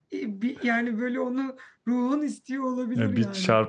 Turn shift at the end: Yes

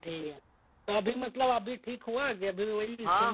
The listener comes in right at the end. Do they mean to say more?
Yes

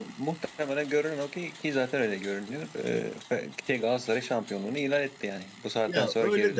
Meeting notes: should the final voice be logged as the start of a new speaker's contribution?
Yes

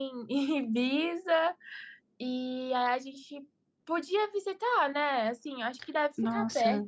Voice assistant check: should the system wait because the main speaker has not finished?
No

